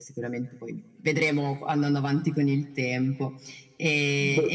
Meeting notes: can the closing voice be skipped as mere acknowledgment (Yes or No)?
Yes